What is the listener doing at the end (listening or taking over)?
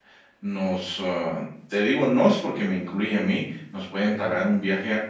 listening